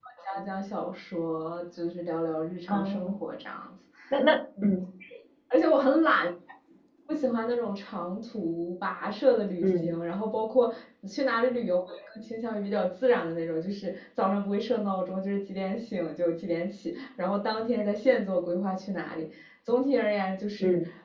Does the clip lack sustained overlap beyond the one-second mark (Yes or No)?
Yes